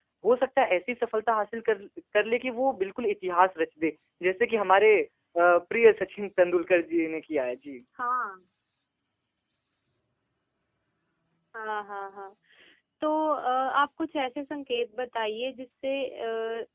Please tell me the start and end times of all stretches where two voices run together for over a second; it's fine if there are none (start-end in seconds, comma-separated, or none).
none